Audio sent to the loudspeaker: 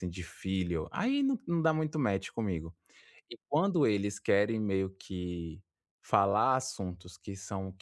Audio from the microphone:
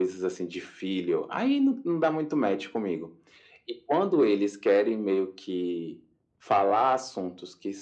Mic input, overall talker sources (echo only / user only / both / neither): echo only